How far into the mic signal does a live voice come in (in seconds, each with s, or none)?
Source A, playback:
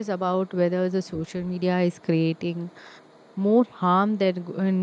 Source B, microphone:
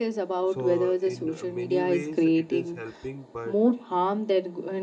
0.5 s